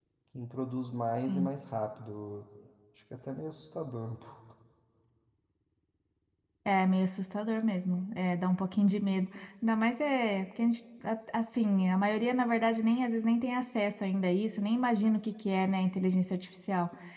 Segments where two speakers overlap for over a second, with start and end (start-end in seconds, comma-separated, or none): none